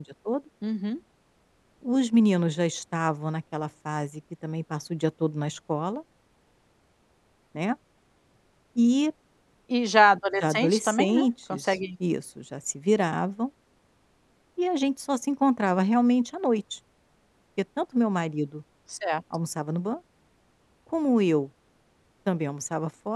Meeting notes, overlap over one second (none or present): present